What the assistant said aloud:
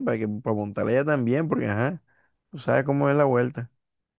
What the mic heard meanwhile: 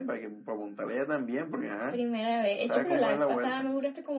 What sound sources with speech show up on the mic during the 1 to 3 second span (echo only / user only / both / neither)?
both